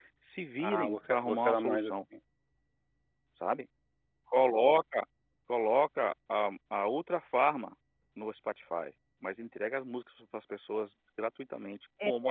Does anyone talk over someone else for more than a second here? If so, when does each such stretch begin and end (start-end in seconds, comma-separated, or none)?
0.6-1.9